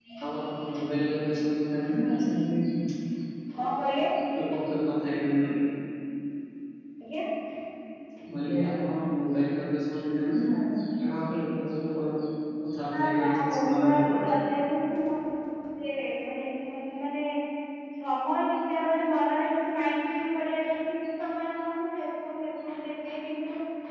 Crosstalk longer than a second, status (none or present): present